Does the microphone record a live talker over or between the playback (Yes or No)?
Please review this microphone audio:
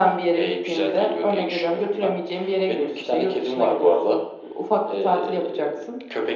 No